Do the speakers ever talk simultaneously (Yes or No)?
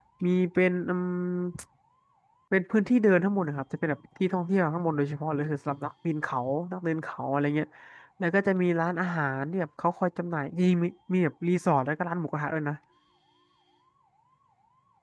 No